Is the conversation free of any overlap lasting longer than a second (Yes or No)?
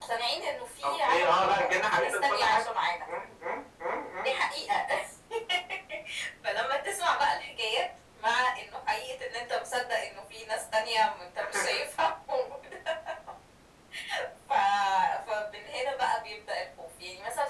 No